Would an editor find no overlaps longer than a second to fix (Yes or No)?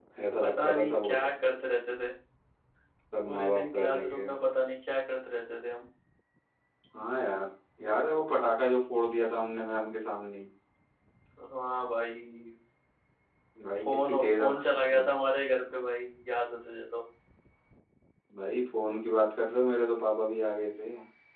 No